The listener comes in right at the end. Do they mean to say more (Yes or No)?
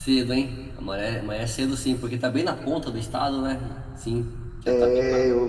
Yes